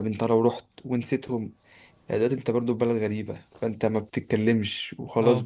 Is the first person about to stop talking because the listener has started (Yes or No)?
No